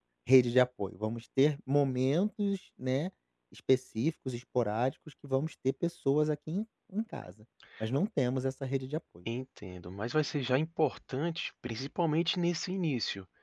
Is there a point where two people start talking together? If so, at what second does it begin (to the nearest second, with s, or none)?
none